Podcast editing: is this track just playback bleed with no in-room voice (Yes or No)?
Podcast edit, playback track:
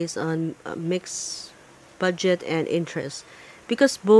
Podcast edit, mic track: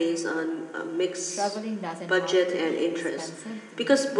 No